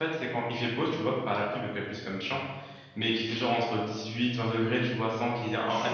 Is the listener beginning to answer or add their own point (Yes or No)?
No